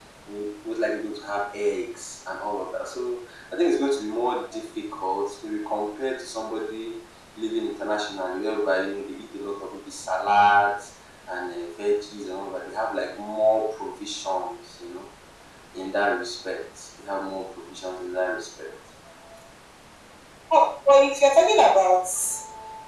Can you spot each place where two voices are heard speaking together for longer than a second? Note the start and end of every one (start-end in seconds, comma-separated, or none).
none